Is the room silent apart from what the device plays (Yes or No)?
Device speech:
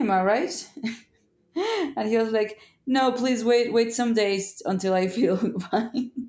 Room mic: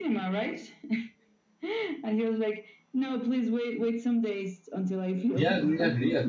No